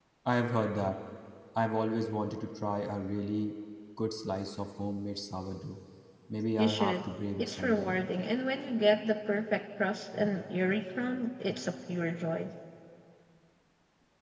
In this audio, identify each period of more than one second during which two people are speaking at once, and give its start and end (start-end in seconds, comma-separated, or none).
6.6-8.0